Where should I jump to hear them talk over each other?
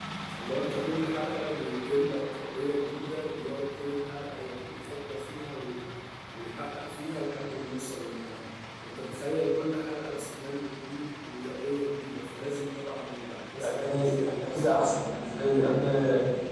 13.6 s

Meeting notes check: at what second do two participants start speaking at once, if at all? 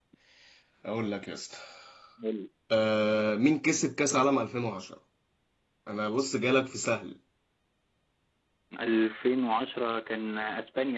none

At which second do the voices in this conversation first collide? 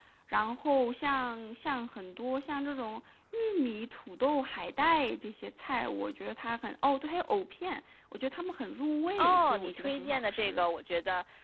9.2 s

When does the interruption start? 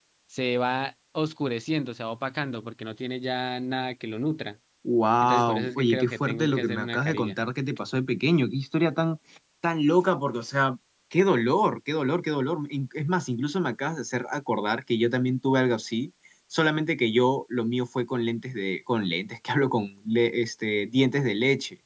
5.2 s

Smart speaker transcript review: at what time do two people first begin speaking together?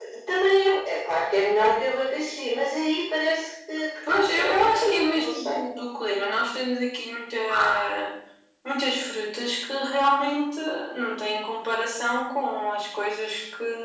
4.1 s

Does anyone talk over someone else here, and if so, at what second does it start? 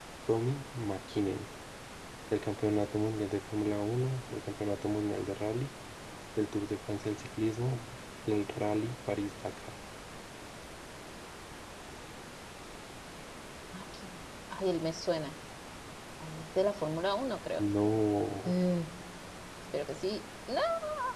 none

